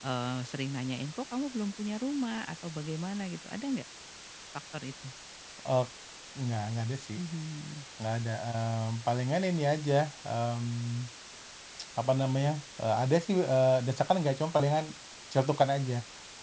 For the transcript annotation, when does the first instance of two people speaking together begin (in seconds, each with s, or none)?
none